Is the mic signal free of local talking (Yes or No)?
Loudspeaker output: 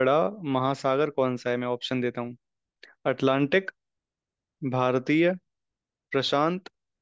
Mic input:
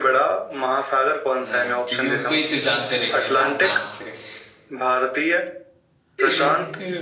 No